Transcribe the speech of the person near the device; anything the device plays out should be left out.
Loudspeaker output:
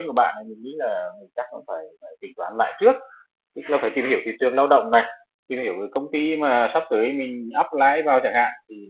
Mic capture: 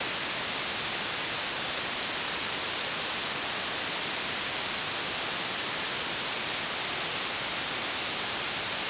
none

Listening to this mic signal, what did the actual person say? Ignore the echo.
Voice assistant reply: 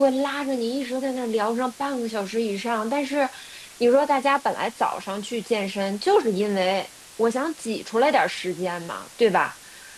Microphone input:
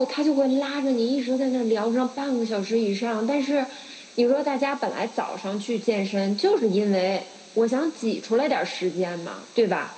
none

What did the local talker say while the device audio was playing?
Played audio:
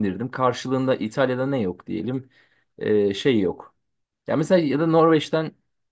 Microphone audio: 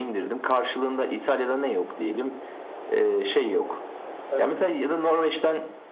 Hani

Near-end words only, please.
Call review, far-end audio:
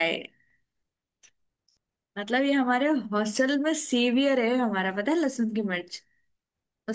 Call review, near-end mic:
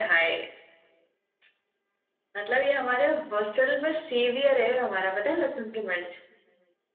none

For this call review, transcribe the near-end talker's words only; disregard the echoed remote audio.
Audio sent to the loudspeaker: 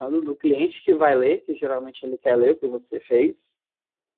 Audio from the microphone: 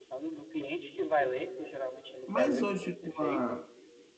Mas hoje, com a,

